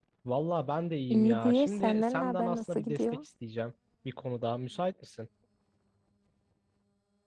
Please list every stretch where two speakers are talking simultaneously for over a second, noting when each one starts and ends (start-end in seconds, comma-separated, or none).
1.1-3.2